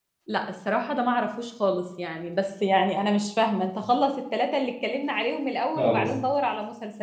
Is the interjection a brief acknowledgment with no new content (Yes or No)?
Yes